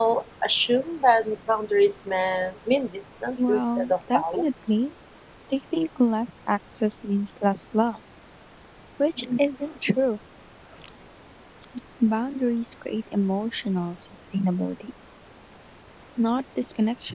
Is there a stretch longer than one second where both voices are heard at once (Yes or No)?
Yes